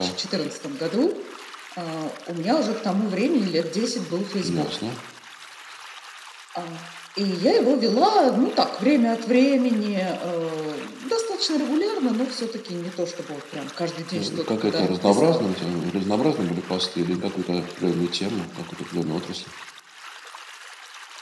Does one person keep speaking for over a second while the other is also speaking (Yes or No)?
Yes